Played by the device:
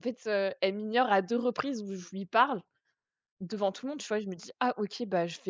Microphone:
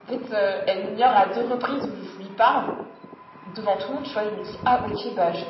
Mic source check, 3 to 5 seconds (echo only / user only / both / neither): echo only